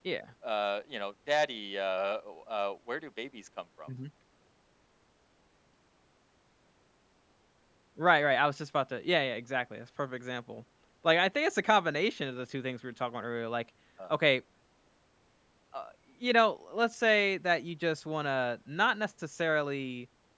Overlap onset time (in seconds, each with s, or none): none